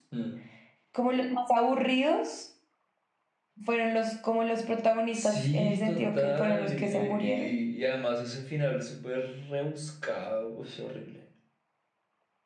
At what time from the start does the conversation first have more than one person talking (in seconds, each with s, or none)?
5.1 s